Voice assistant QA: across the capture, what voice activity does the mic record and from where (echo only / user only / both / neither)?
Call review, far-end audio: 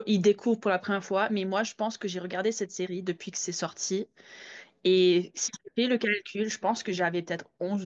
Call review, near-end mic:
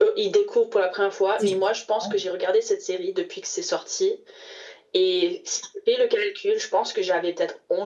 both